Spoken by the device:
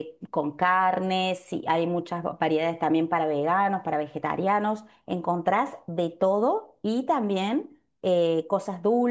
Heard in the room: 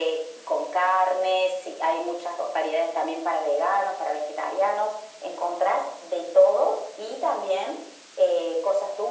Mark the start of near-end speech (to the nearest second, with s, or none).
none